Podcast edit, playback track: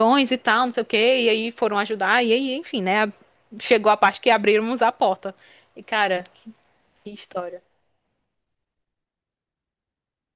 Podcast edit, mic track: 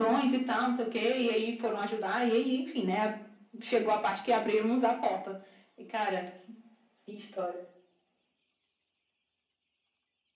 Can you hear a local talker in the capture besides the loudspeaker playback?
No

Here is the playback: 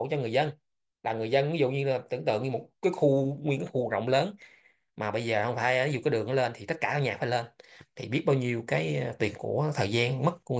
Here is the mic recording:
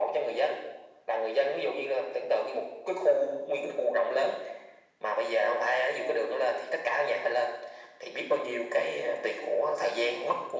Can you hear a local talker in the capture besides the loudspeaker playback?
No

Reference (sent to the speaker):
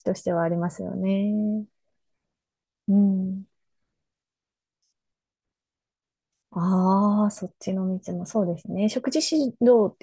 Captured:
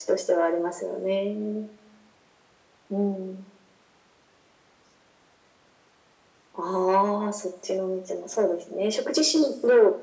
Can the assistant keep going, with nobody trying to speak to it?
Yes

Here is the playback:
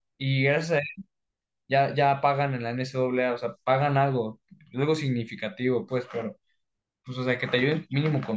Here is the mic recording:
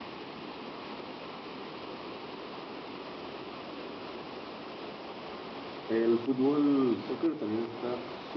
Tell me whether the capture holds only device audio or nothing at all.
No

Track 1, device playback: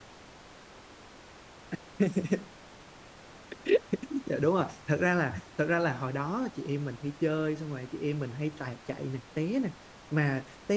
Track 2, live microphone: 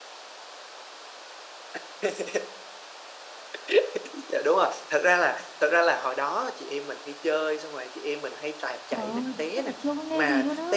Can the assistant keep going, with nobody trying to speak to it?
No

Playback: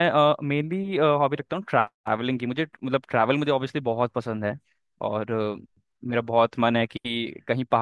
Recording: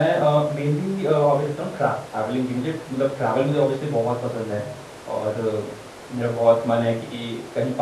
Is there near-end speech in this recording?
No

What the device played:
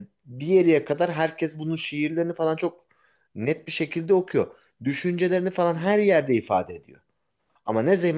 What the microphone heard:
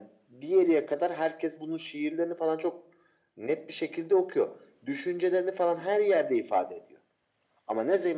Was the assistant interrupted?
No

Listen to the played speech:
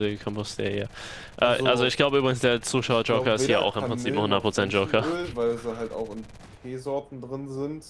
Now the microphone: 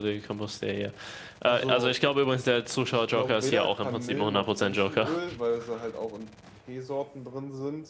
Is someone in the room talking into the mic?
No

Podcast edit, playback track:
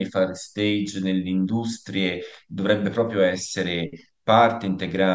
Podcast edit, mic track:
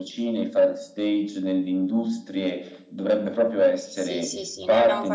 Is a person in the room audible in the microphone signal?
Yes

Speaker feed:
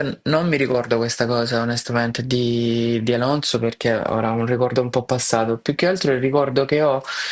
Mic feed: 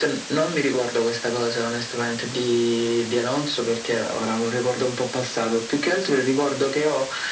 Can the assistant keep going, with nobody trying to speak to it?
Yes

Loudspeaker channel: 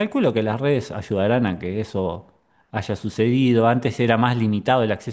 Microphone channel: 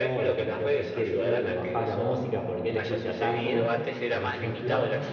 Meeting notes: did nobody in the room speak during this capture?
No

